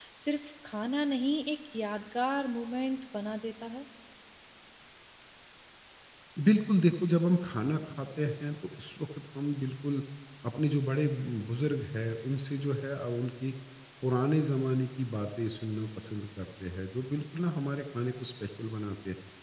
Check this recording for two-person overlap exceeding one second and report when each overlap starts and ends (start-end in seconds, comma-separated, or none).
none